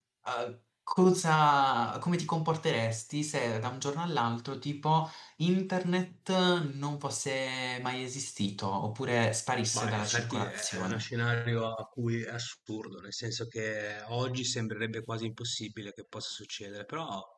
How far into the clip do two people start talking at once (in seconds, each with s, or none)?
9.7 s